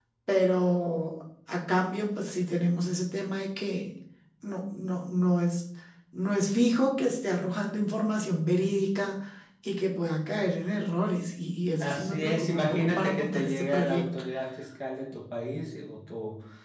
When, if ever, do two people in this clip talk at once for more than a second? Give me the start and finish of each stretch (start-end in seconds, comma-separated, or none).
11.8-14.1